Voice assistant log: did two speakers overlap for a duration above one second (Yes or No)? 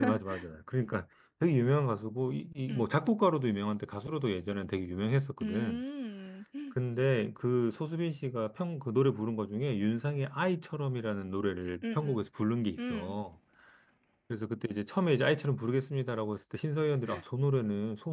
No